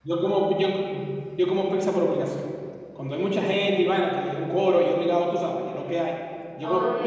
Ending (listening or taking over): listening